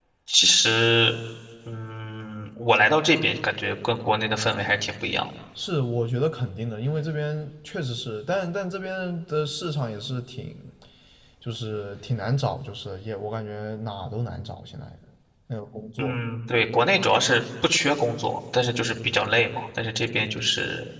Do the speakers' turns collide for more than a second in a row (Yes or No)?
No